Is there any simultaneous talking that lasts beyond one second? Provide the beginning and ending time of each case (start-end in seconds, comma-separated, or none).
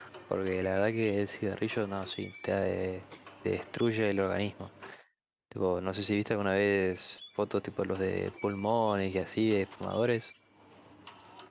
none